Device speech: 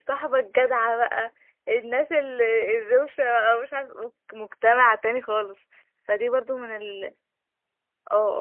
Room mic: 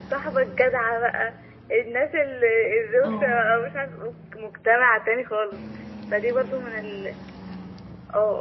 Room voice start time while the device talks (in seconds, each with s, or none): 3.0 s